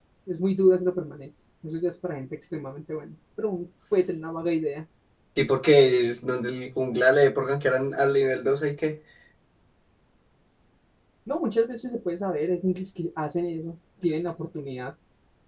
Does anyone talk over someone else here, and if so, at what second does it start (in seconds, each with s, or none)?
none